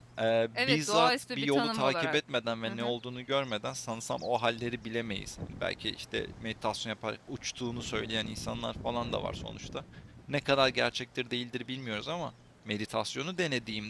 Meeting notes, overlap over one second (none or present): present